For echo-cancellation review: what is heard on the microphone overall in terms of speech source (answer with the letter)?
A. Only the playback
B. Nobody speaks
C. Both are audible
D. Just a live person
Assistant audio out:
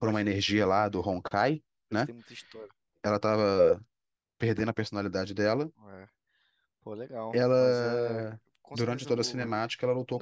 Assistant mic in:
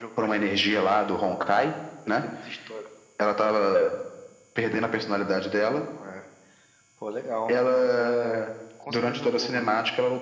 A